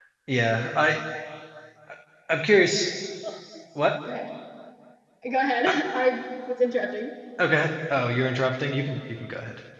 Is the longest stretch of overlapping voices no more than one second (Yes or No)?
Yes